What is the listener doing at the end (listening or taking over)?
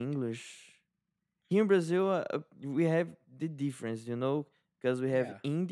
listening